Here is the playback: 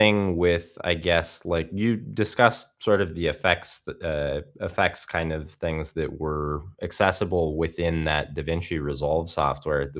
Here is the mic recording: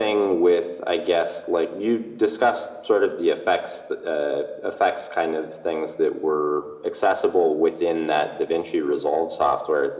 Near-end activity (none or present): none